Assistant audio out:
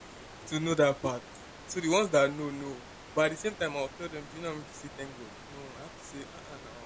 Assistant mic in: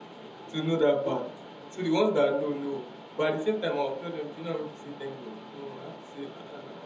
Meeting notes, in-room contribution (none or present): none